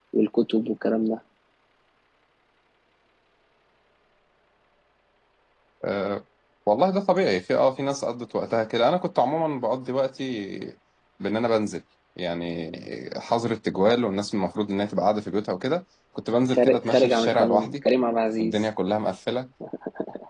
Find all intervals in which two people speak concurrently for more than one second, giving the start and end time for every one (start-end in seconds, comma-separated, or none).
16.5-17.8